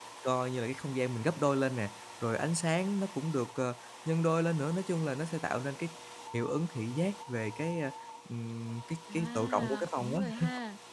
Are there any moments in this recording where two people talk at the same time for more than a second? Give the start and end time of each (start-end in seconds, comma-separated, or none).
9.1-10.4